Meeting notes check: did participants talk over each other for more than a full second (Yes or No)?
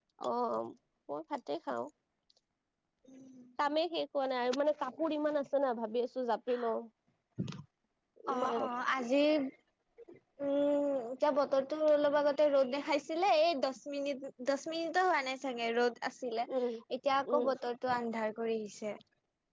No